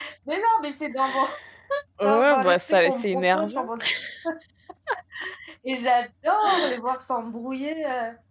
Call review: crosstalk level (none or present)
present